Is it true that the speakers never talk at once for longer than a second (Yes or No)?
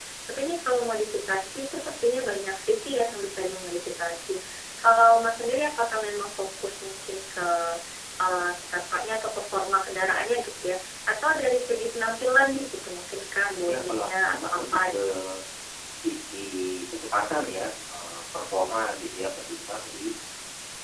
No